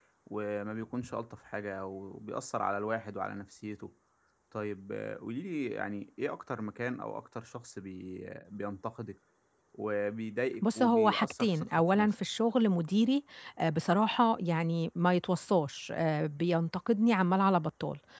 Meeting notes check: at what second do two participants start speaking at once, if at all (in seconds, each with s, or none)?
10.6 s